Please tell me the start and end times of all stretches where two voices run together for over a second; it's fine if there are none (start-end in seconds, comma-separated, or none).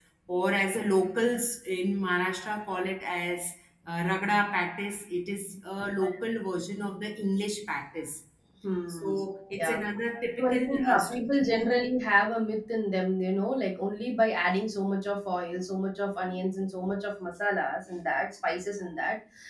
10.4-11.7